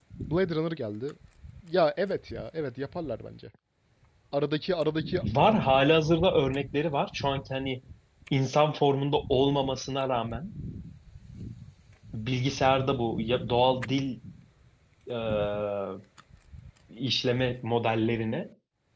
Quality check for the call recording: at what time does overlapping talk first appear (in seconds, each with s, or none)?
none